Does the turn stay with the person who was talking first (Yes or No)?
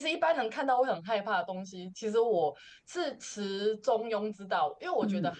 Yes